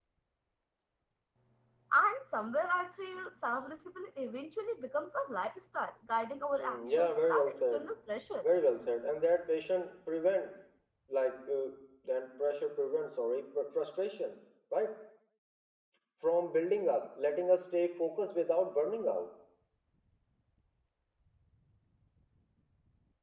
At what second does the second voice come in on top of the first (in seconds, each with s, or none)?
6.6 s